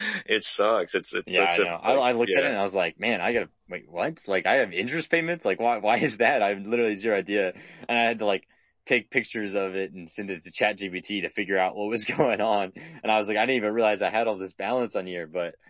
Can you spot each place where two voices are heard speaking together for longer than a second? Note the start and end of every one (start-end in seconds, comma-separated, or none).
1.3-2.5